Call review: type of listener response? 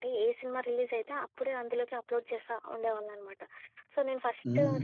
listening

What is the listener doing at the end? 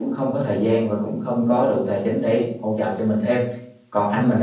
listening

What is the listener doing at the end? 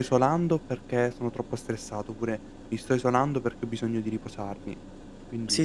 taking over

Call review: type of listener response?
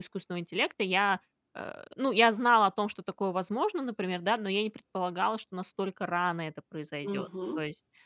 listening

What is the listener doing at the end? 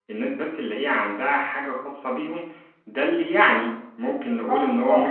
taking over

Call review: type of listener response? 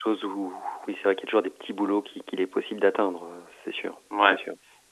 taking over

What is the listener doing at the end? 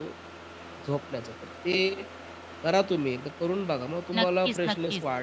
taking over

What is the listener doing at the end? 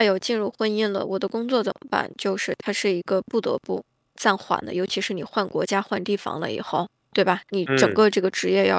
listening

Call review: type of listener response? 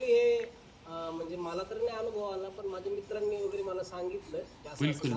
taking over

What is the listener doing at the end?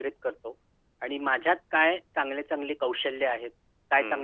listening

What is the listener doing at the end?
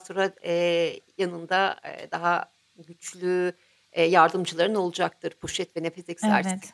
taking over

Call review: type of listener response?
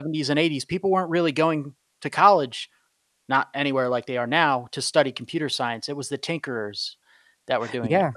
taking over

